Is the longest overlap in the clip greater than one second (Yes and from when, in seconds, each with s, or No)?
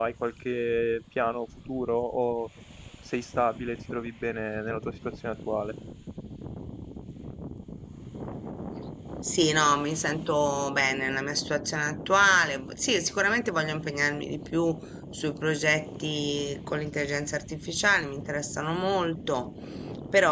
No